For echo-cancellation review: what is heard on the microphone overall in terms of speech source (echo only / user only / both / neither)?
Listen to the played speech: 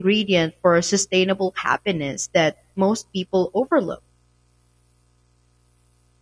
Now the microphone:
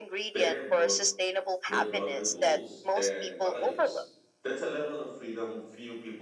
both